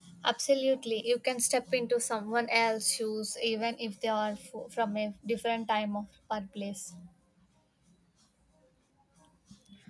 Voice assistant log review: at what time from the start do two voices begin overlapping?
none

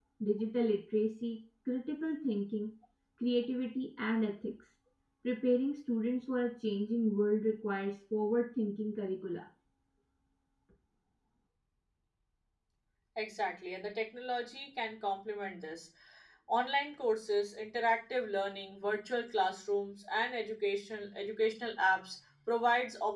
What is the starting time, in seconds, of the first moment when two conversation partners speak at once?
none

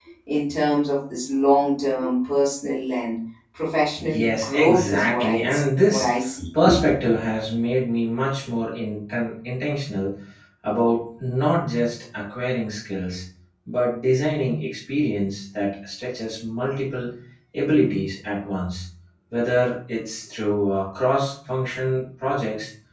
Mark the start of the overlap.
4.1 s

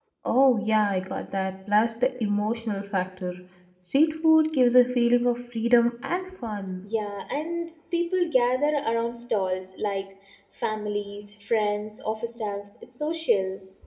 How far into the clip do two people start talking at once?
none

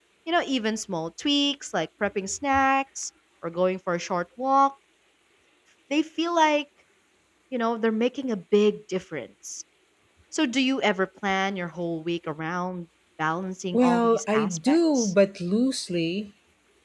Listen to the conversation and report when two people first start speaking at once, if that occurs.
13.7 s

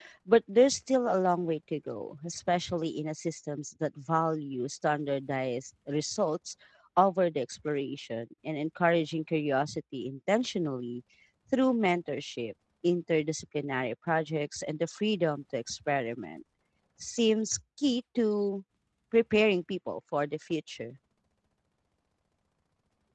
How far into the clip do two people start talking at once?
none

